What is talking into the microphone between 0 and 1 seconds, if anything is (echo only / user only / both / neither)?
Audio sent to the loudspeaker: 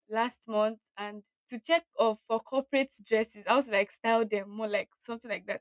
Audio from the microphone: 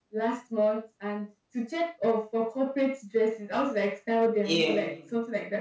echo only